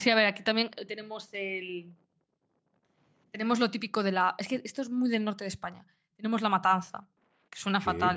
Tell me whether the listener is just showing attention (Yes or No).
Yes